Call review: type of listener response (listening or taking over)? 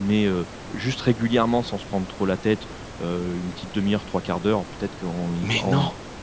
listening